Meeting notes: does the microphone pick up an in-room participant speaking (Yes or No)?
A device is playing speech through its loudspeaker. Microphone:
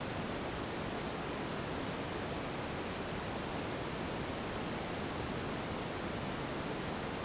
No